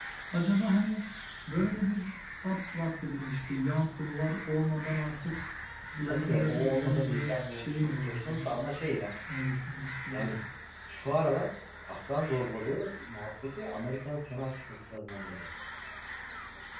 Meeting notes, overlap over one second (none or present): present